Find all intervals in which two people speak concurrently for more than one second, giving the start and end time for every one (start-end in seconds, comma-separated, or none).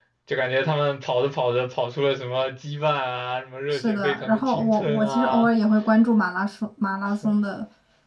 3.7-5.5